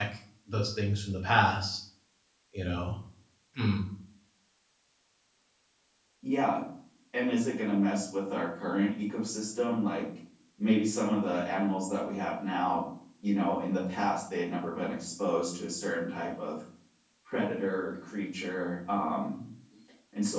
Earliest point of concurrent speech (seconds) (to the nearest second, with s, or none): none